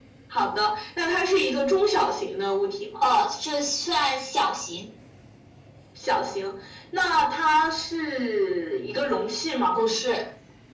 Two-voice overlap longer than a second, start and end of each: none

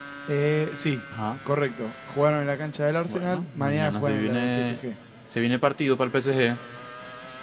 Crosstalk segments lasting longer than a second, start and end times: 3.1-4.8

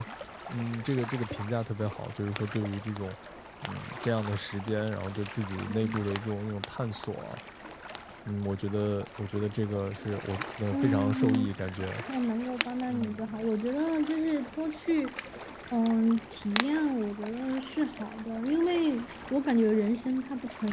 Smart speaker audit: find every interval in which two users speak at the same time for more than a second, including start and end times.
10.7-12.0

